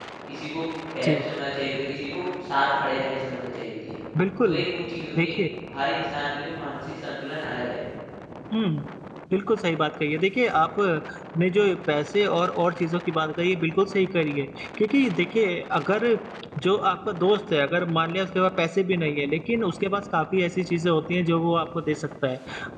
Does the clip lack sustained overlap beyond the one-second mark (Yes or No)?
Yes